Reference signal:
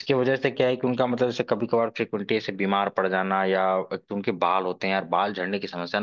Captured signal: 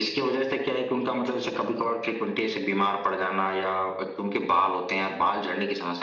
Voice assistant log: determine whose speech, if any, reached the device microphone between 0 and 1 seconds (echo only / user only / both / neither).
echo only